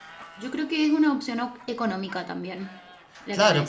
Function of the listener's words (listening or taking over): taking over